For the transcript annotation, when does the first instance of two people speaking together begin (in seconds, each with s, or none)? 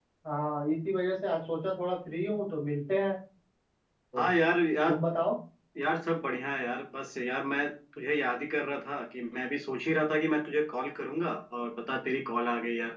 none